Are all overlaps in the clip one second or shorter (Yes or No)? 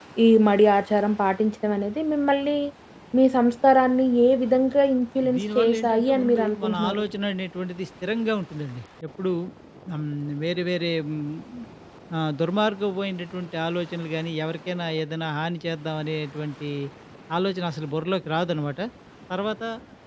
No